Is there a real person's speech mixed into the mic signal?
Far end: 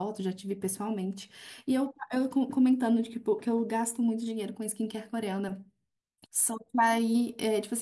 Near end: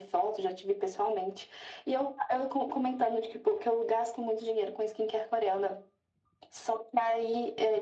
No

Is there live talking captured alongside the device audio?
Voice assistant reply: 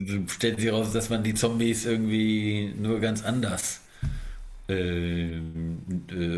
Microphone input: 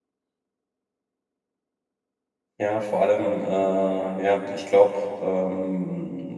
Yes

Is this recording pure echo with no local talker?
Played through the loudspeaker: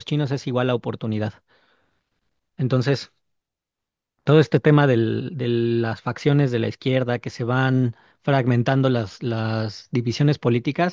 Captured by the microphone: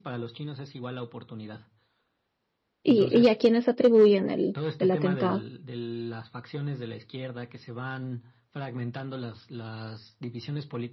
No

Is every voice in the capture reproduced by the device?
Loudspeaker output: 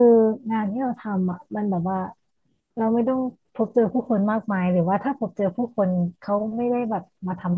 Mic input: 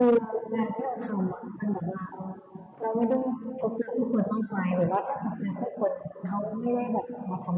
Yes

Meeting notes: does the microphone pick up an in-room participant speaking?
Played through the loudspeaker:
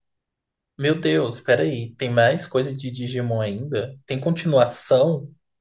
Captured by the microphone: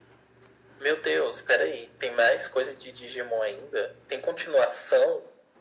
No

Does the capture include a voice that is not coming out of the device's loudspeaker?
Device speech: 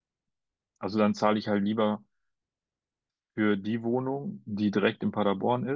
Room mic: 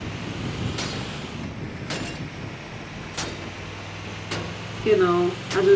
Yes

